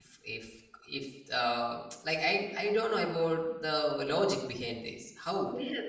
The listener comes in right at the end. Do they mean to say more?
Yes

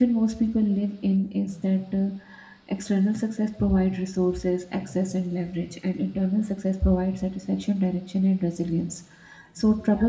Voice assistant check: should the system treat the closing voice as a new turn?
No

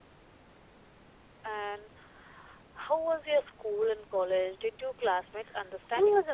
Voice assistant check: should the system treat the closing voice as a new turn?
Yes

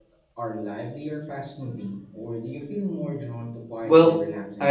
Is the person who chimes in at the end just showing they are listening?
No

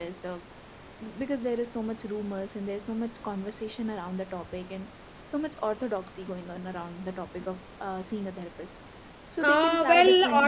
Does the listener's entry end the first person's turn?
Yes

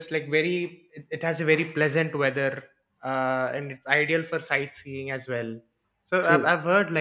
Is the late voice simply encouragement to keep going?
Yes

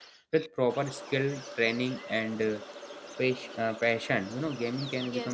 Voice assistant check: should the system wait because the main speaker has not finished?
No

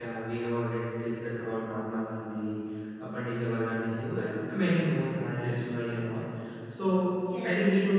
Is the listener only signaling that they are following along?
Yes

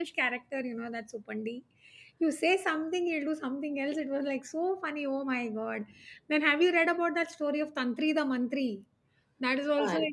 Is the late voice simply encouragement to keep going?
Yes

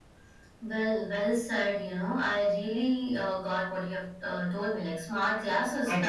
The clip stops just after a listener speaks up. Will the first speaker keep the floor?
Yes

